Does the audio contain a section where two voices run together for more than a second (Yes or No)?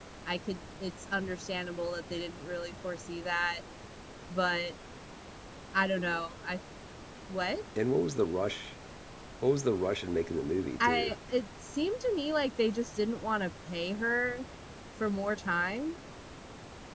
No